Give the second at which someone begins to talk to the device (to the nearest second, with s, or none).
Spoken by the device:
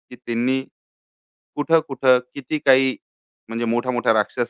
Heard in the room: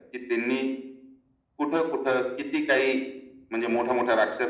none